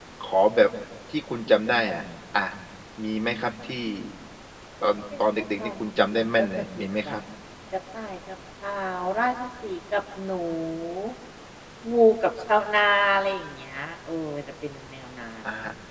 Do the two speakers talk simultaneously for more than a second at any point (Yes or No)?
Yes